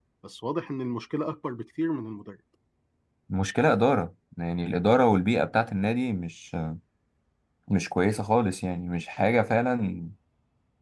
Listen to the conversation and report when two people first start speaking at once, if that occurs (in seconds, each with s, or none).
none